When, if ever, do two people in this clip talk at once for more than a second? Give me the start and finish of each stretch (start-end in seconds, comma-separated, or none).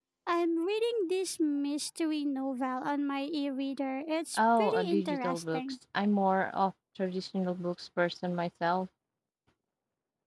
4.4-5.6